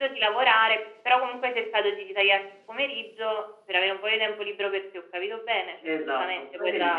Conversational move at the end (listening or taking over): taking over